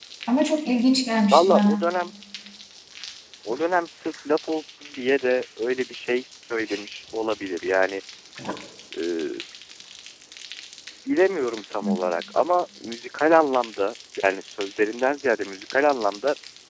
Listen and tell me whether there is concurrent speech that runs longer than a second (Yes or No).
No